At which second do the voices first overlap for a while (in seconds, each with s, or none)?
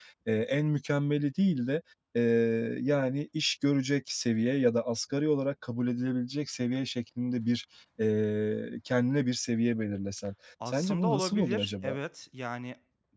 10.6 s